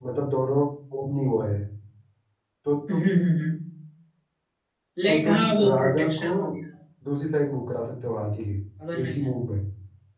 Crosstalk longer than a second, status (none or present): present